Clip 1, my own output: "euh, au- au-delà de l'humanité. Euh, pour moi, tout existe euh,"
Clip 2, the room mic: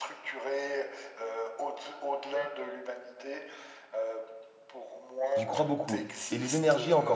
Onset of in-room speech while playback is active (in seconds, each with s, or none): 5.3 s